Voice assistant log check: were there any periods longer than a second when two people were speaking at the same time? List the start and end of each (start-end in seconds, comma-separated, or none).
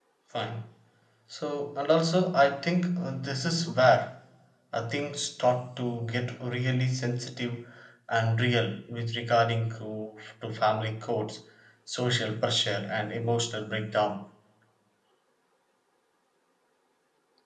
none